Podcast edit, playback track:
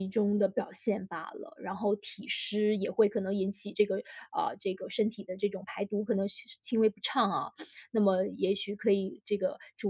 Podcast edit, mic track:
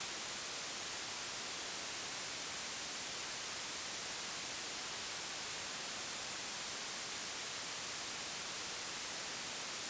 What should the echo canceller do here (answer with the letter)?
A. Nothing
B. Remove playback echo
A